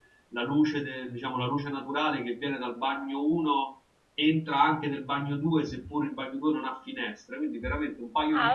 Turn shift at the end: Yes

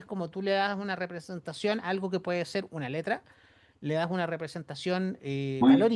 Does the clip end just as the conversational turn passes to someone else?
Yes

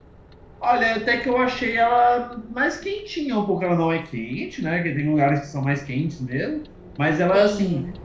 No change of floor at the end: Yes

